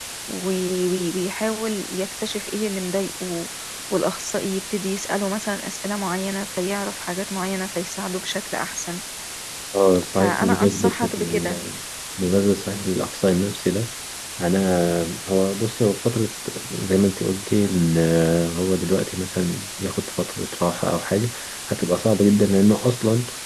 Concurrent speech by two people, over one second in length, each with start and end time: 10.1-11.6

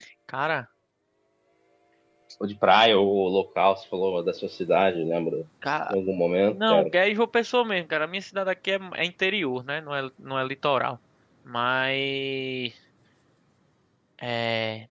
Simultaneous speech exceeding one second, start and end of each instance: none

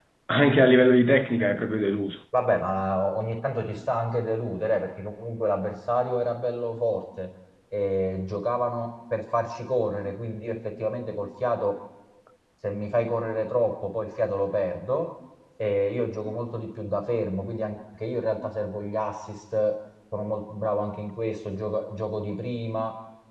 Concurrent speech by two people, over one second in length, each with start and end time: none

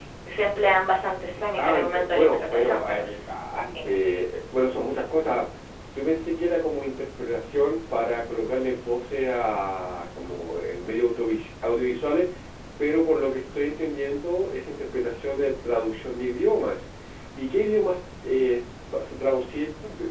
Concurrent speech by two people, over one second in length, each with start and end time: 1.6-3.0

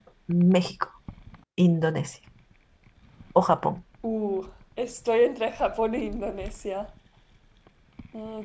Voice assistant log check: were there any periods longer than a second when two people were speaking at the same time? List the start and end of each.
none

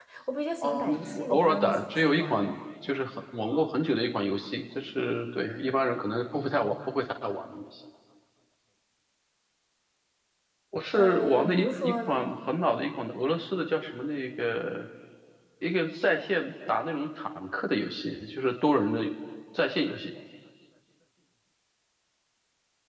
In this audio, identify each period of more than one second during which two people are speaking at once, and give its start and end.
0.6-2.6, 11.0-12.3

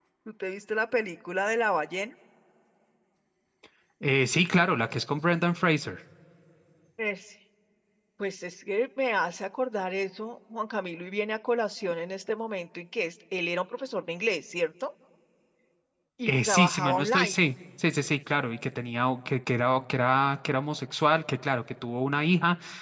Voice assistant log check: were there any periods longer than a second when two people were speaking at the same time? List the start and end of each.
16.3-17.5

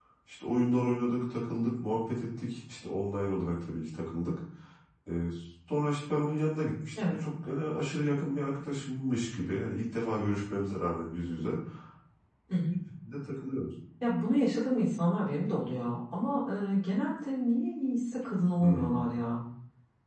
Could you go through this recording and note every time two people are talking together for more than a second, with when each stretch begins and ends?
none

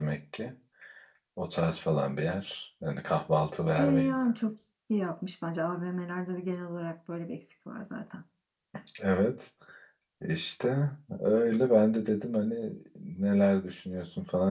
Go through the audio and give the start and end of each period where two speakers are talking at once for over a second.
none

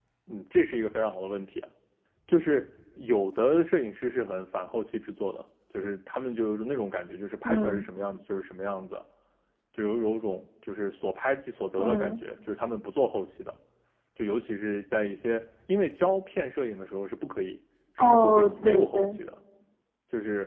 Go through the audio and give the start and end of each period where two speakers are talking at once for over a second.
18.0-19.2

